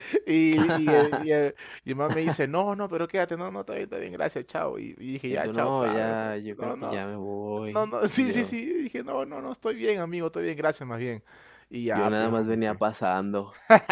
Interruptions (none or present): present